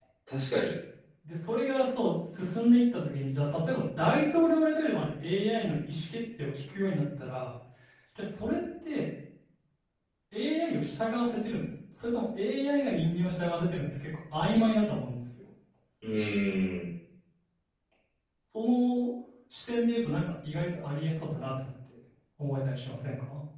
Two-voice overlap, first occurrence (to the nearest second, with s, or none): none